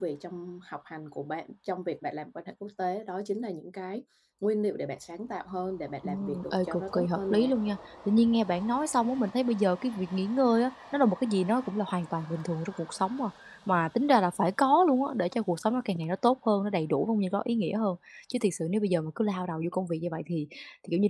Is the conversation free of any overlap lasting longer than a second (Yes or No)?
No